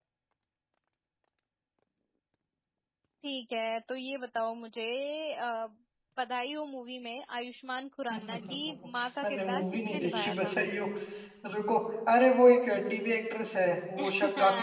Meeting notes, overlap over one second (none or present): present